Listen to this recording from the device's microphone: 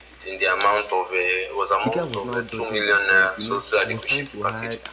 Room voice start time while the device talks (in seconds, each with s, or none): 1.8 s